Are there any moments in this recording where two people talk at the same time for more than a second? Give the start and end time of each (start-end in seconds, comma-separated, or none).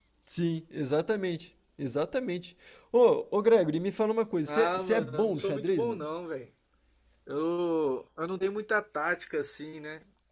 4.5-6.0